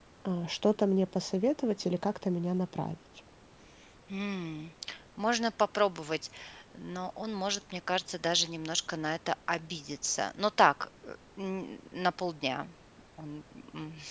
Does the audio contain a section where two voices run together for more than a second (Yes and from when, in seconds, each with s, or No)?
No